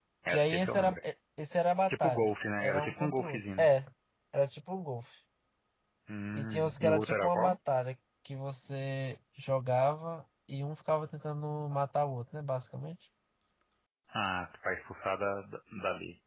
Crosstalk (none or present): present